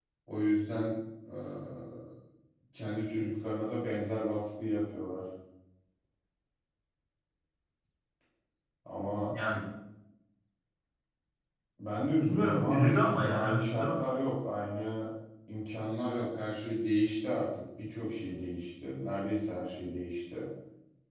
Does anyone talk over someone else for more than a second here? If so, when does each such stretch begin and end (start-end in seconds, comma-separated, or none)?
12.2-14.0